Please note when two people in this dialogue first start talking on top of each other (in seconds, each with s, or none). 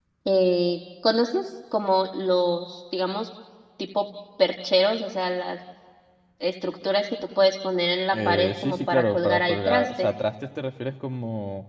8.1 s